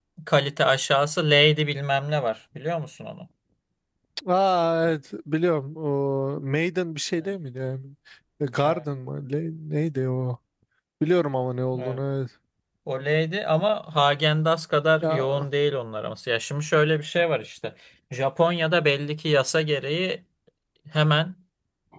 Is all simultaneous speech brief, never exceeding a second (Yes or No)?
Yes